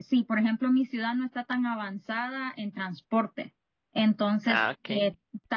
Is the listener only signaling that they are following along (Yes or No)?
Yes